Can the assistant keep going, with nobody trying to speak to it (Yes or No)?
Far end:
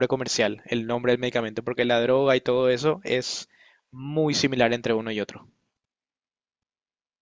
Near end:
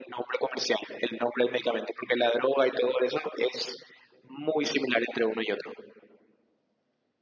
Yes